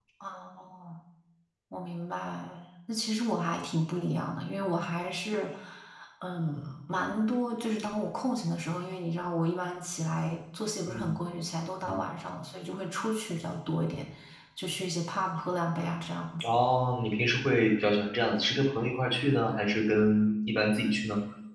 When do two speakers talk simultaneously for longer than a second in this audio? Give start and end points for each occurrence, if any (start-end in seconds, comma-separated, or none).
none